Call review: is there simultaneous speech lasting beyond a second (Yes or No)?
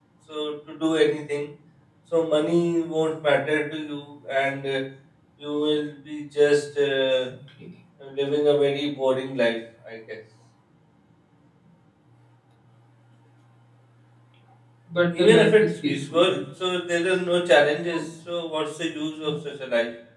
Yes